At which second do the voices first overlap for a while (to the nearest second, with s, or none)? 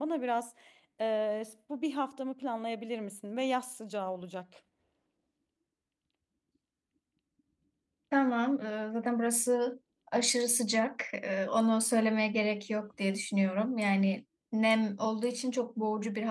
none